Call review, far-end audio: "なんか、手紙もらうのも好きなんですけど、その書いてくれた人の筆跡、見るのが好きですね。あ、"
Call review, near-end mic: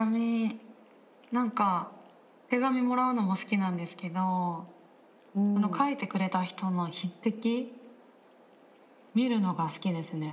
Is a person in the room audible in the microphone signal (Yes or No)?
Yes